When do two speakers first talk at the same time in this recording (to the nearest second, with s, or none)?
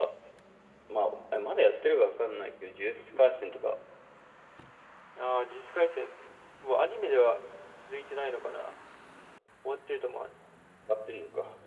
none